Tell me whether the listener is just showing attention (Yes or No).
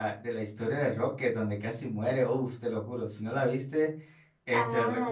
No